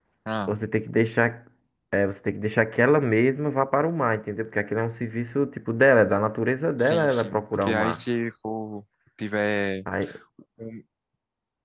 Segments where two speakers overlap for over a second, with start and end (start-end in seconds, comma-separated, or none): 6.8-8.0